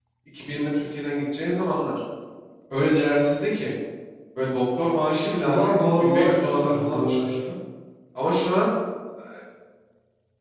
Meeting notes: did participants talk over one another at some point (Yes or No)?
Yes